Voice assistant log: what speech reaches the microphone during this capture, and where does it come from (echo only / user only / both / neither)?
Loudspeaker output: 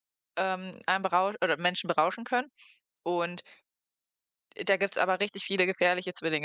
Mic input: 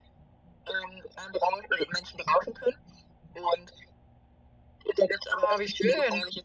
both